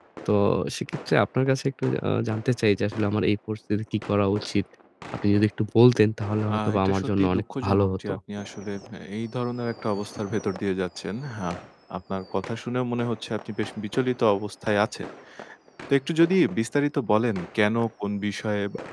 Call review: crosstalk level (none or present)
present